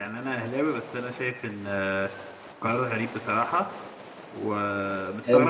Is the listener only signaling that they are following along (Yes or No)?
Yes